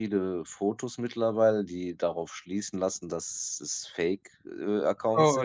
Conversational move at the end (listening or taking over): taking over